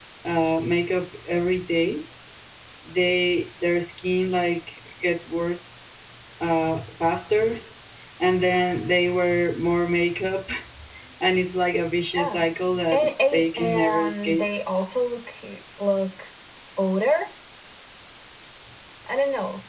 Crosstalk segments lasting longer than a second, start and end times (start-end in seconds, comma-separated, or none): 12.9-14.4